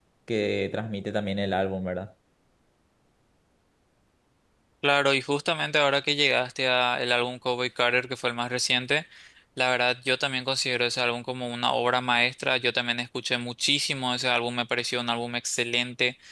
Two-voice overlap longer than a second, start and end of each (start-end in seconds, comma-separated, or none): none